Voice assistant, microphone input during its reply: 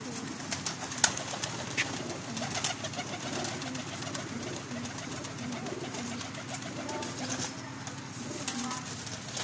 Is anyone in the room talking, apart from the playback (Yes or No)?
No